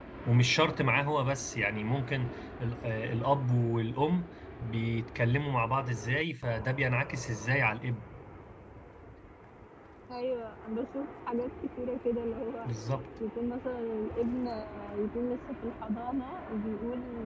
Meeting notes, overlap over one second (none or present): none